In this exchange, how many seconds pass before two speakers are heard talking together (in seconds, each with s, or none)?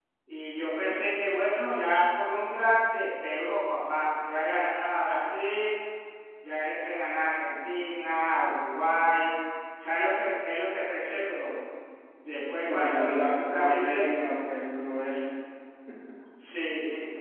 12.7 s